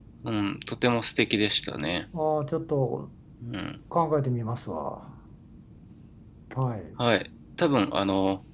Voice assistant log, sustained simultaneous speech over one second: none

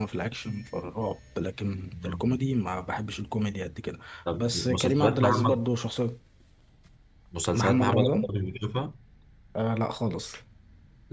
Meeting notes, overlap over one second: present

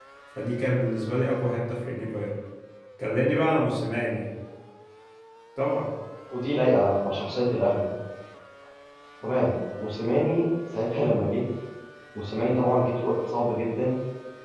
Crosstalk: none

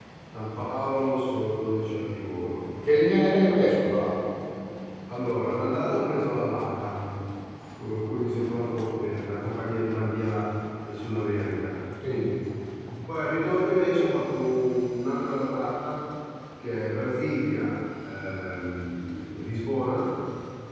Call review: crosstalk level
none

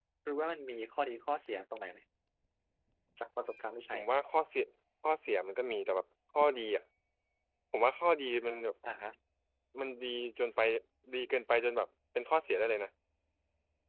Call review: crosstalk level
none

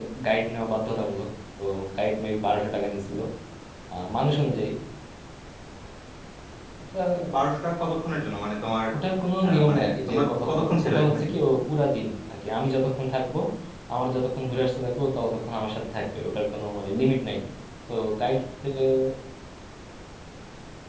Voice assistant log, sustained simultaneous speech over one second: present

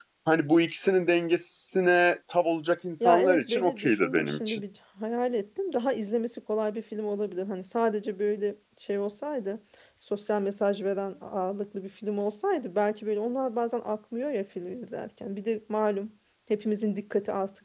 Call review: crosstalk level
present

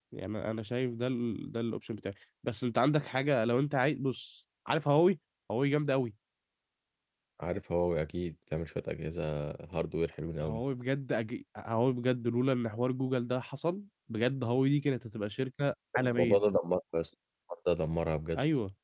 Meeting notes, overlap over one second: none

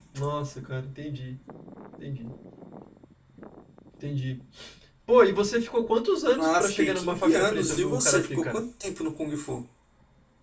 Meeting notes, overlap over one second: present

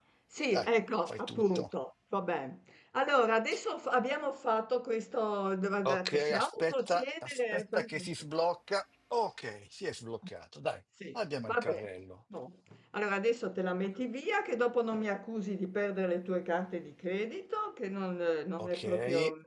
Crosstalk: present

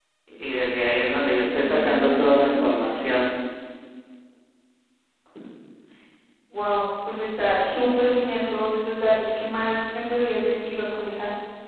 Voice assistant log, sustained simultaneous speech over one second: present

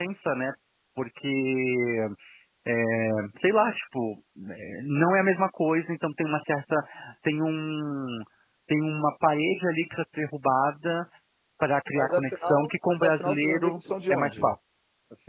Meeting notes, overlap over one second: present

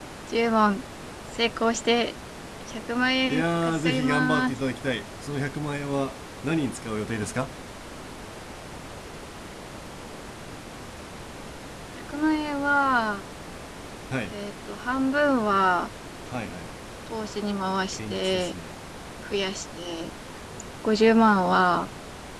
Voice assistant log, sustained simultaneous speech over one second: present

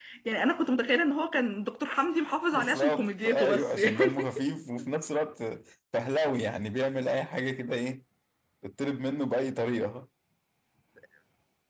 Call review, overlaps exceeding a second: present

